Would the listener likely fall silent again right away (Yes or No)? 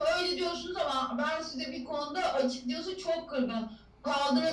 Yes